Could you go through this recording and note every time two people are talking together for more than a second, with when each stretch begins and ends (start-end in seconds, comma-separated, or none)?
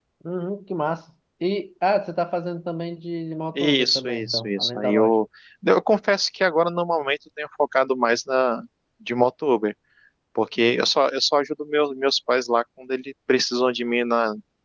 3.5-5.2